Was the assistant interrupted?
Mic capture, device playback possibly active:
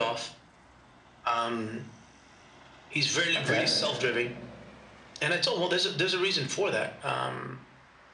Yes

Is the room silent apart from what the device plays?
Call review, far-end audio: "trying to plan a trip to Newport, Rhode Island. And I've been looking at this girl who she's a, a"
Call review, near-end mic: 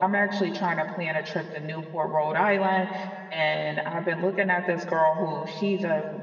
Yes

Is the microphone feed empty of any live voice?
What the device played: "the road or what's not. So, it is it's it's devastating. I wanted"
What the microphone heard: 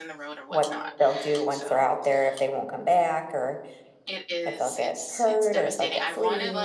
No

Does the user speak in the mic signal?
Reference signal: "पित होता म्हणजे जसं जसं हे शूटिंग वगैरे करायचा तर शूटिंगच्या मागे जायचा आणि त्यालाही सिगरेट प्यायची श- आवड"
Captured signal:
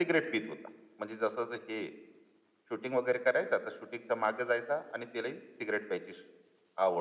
No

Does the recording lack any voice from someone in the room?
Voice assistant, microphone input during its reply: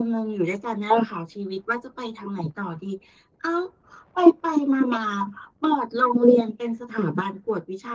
Yes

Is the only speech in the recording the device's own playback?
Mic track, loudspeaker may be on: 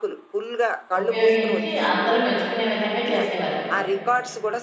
No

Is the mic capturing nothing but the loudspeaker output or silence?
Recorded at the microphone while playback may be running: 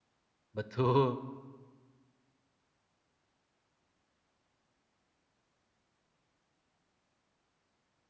No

